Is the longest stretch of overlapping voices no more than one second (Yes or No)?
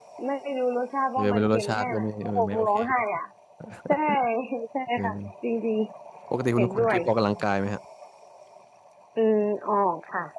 No